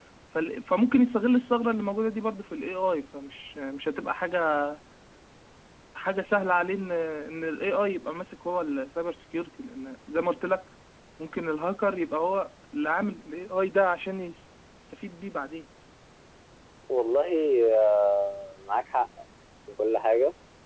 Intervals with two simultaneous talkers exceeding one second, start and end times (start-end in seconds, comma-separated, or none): none